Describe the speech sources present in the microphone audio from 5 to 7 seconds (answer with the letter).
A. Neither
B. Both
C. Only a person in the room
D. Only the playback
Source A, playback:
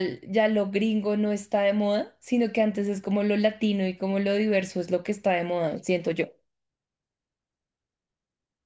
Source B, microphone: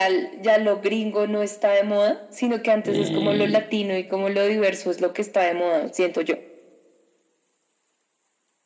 D